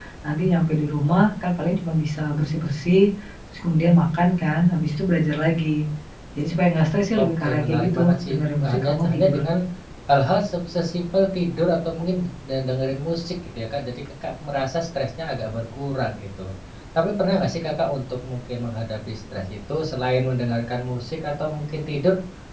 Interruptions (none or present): present